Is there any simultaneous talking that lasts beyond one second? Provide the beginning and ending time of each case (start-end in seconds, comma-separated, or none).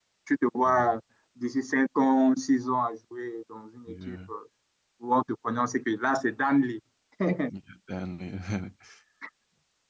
none